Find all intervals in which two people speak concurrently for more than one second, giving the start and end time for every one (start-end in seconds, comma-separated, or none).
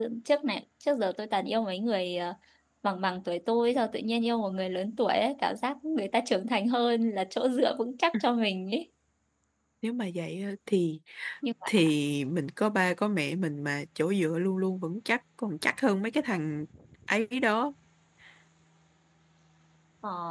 none